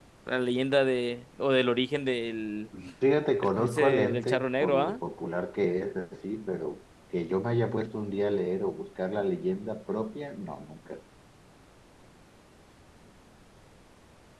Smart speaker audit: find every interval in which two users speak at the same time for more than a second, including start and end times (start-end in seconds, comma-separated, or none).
3.4-5.0